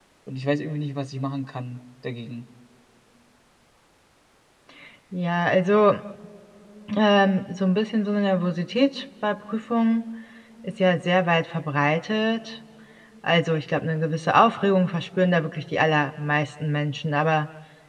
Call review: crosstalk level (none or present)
none